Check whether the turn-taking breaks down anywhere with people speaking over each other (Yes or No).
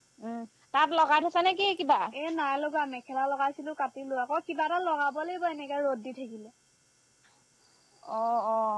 No